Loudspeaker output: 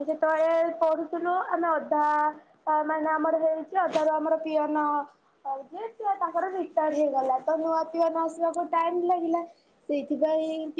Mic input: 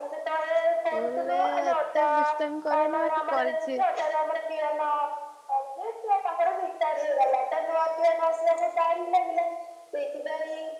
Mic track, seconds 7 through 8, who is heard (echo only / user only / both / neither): echo only